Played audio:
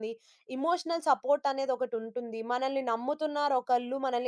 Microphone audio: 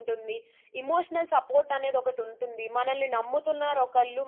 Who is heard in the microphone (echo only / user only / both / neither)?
echo only